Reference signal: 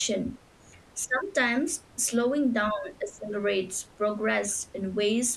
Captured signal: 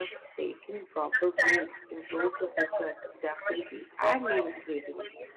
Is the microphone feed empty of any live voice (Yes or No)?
No